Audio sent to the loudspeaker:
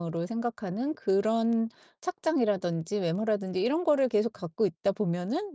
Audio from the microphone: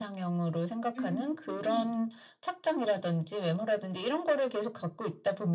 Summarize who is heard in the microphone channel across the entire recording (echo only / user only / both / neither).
both